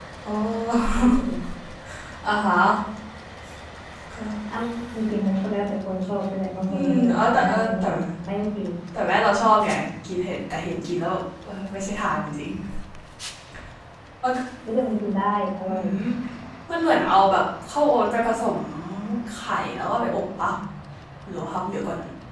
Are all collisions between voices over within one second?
No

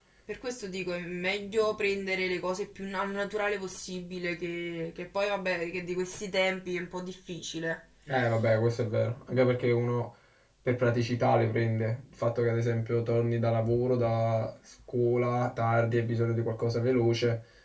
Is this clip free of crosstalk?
Yes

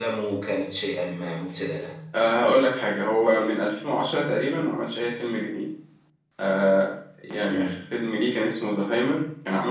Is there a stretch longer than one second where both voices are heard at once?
No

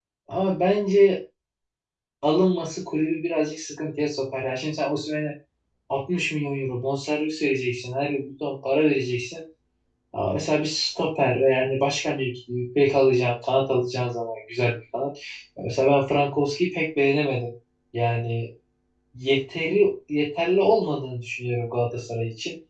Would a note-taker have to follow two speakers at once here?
No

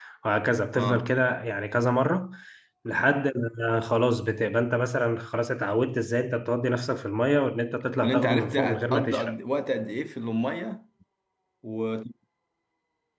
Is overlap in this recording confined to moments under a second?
No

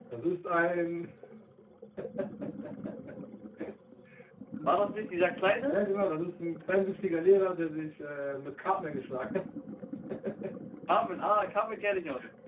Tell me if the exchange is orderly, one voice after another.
Yes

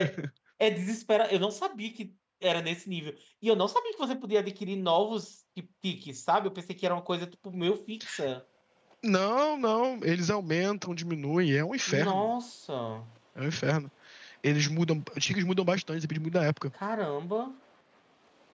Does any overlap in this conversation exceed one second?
No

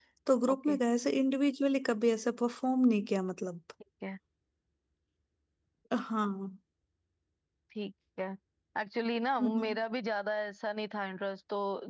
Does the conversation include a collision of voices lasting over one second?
No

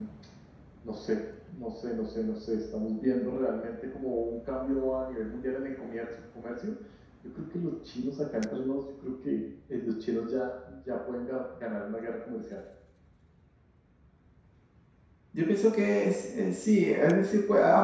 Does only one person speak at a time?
Yes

